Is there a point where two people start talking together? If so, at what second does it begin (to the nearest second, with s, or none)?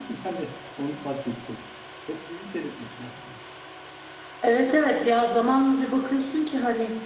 none